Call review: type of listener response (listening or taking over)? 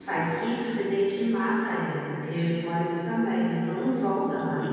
taking over